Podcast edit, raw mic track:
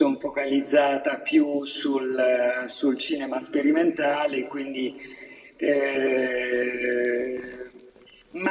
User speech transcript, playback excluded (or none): none